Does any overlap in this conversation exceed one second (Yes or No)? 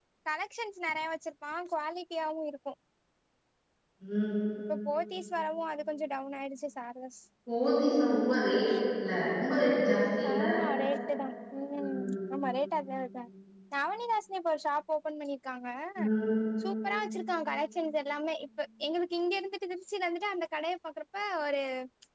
No